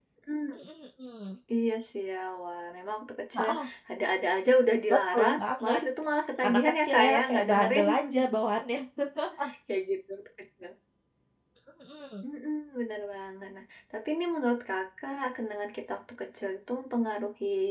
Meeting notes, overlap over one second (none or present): present